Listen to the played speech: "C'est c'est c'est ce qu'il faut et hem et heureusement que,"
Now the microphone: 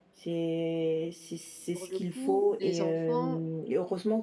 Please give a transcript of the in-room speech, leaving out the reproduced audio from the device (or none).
pour le coup les enfants,